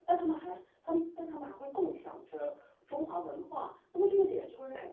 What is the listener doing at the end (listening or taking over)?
listening